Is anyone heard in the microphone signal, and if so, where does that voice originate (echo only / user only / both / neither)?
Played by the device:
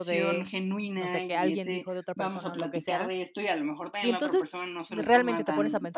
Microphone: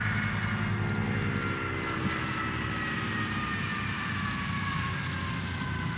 neither